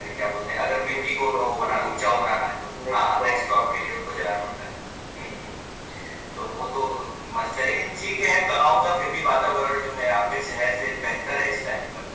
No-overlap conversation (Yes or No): No